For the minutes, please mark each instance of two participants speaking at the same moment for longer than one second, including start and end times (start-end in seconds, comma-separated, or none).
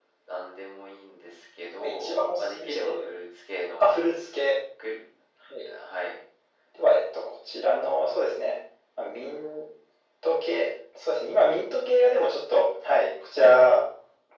1.8-3.1